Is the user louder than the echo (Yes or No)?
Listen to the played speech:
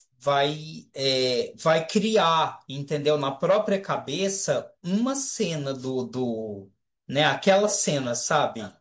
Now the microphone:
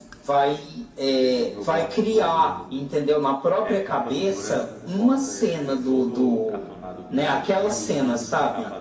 No